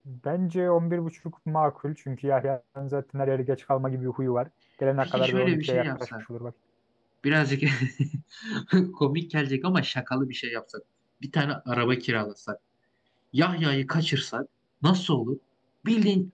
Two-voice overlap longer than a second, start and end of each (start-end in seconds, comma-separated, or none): 5.0-6.2